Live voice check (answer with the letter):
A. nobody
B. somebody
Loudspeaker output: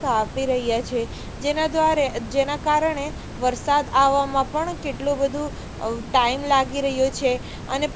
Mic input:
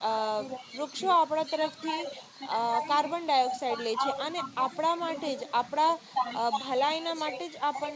B